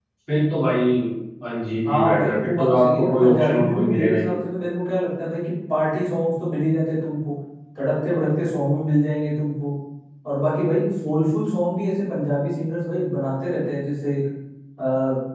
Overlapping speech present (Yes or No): Yes